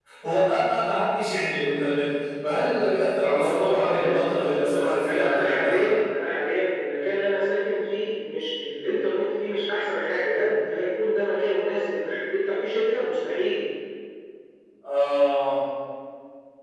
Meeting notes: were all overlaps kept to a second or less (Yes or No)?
No